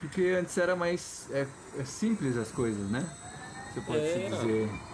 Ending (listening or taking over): listening